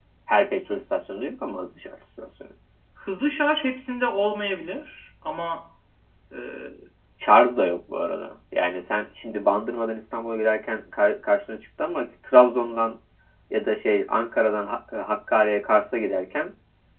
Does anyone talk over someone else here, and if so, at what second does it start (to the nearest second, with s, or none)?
none